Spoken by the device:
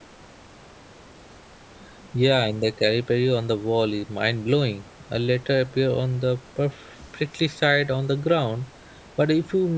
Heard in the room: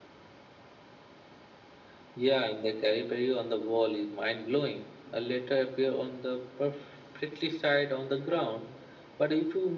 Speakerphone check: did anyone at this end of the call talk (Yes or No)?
No